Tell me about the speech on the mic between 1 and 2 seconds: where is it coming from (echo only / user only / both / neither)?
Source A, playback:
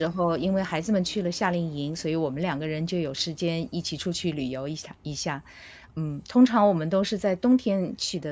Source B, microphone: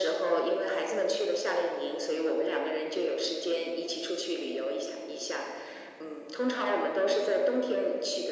echo only